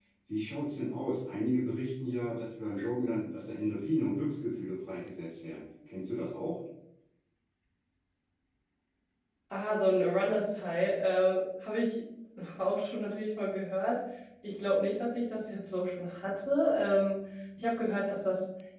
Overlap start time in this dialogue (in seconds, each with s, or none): none